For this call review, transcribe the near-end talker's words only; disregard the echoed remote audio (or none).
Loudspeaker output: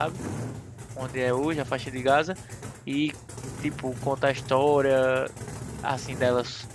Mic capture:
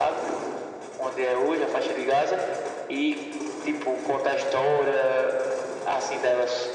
none